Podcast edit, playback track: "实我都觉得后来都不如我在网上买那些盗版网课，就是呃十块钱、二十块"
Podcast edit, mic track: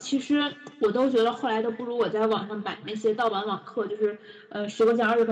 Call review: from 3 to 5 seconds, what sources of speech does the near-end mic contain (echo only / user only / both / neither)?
echo only